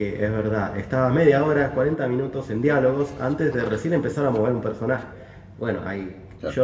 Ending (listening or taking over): listening